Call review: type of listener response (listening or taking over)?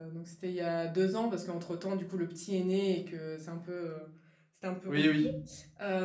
listening